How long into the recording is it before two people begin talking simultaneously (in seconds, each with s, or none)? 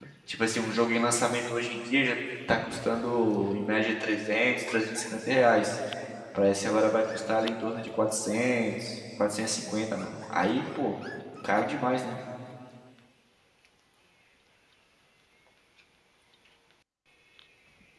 none